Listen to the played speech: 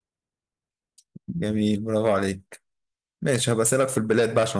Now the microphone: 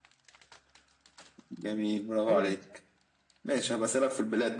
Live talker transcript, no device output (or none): قول أنت